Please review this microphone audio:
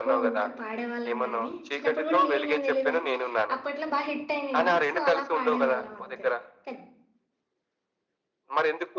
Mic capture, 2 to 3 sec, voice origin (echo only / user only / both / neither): both